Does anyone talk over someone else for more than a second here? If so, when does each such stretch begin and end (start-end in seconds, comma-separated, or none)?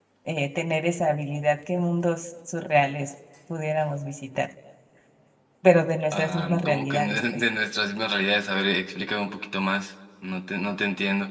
6.1-7.4